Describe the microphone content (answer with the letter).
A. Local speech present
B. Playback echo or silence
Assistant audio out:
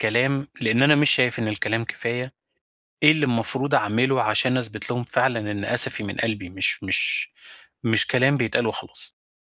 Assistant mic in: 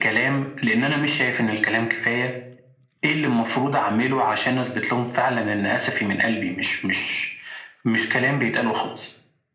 B